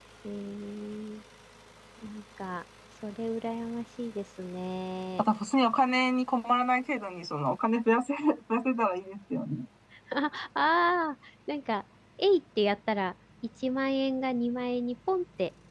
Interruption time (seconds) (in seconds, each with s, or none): none